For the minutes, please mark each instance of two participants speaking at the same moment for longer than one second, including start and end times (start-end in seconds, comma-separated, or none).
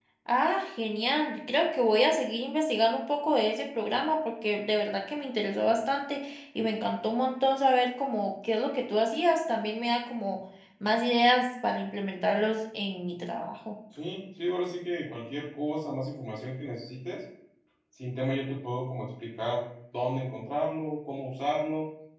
none